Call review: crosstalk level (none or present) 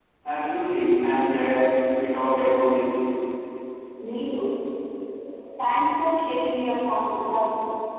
none